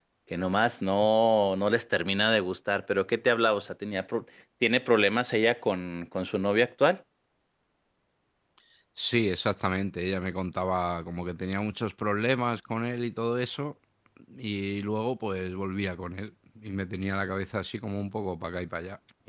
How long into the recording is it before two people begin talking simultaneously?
none

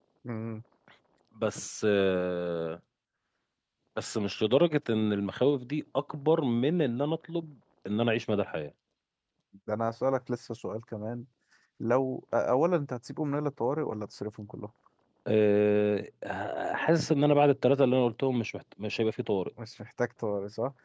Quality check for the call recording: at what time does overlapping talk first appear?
none

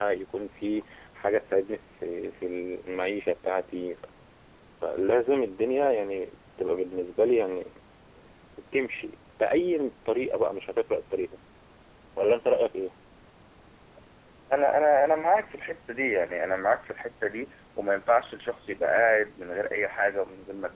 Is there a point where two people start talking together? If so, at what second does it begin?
none

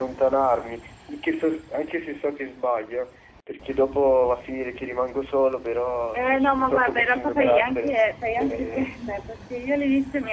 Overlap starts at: 6.1 s

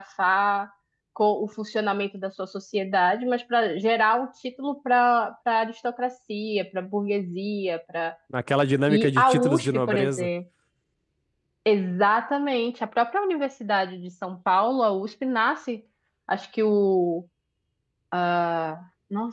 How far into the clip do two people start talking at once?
8.9 s

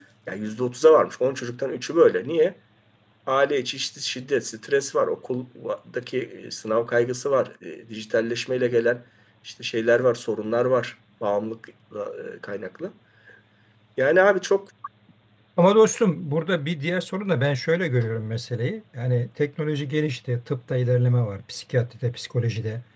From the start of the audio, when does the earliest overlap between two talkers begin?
none

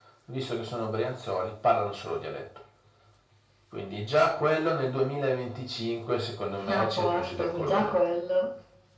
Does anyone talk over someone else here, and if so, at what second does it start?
6.6 s

